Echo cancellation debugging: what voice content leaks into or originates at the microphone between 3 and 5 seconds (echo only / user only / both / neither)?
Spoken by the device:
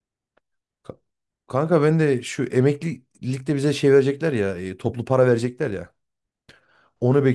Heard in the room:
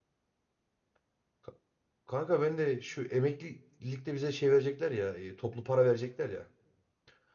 echo only